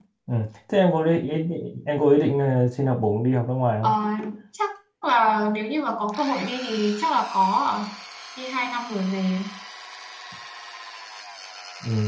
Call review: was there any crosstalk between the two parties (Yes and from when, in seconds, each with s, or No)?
No